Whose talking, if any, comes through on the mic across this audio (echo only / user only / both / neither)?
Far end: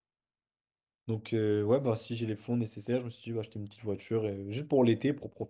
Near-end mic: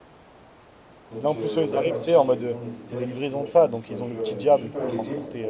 both